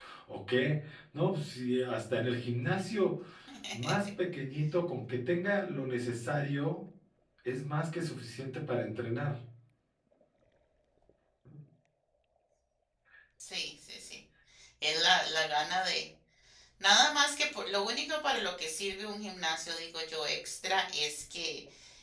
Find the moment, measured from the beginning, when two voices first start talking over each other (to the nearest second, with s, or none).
none